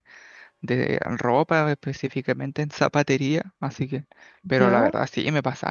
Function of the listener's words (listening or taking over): listening